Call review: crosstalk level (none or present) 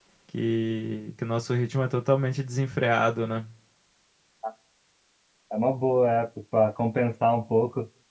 none